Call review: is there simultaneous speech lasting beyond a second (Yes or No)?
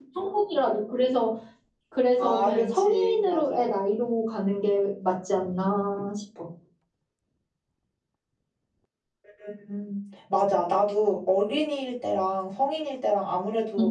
Yes